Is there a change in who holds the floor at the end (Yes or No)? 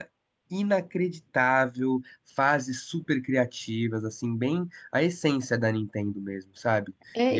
Yes